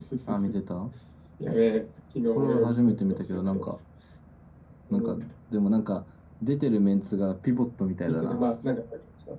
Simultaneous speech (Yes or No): Yes